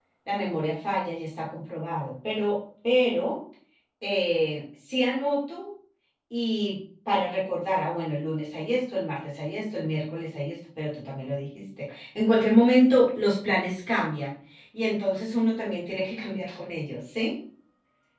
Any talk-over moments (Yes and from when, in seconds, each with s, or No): No